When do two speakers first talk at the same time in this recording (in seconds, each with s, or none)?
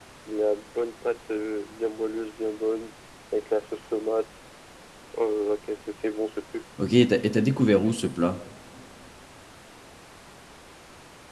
none